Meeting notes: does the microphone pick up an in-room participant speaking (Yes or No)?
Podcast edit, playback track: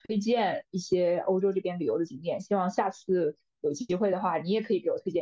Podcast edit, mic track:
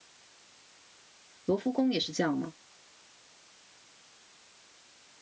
Yes